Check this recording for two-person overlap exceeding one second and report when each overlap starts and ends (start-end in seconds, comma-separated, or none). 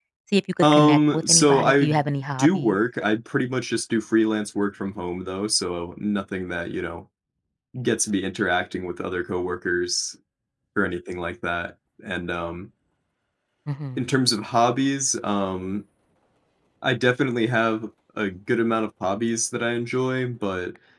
0.6-1.9